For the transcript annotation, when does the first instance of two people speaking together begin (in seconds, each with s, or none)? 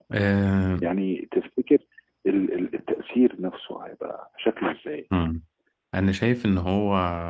none